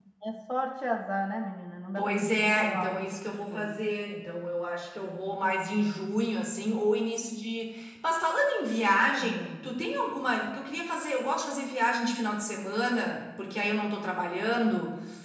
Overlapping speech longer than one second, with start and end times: 2.0-3.9

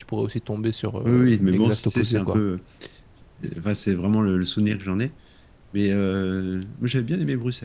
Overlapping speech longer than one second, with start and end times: 1.0-2.4

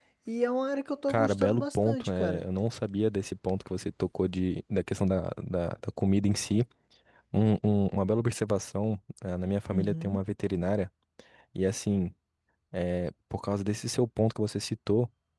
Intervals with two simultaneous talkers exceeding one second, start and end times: 1.1-2.5

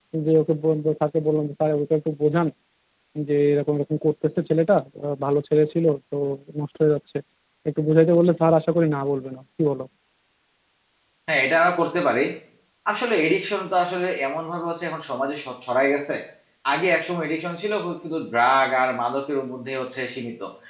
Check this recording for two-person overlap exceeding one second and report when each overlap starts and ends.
none

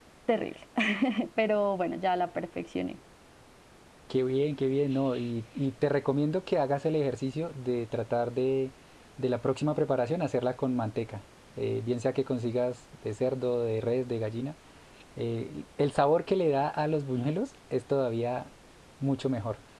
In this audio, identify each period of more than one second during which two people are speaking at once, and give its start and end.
none

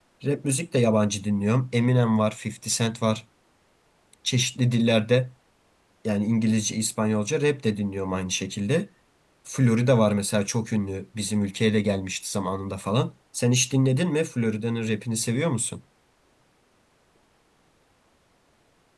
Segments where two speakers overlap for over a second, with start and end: none

